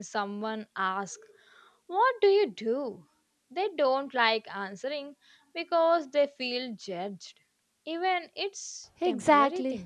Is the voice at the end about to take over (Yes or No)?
Yes